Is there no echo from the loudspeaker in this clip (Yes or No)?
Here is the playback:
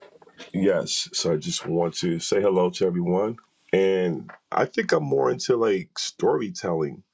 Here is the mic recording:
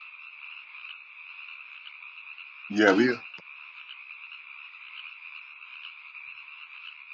Yes